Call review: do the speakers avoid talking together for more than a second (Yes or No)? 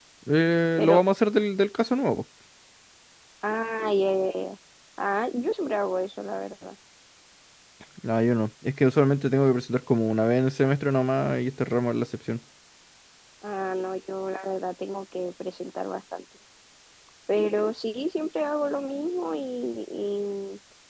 Yes